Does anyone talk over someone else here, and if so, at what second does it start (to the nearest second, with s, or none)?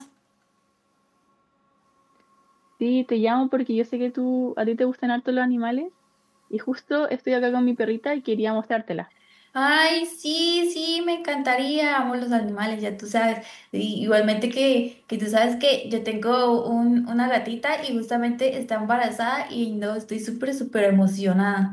none